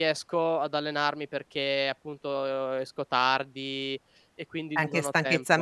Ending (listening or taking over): taking over